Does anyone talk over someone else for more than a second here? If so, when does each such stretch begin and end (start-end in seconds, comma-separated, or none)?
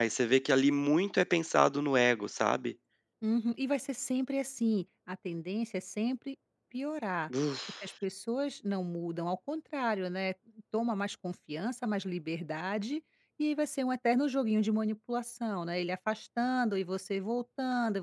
none